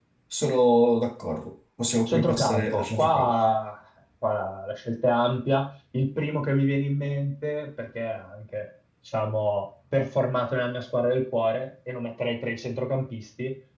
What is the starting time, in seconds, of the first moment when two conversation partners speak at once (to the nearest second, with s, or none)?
2 s